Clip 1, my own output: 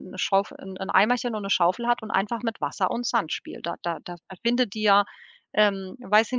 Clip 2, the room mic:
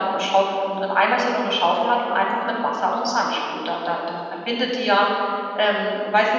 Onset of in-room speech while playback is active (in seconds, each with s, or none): none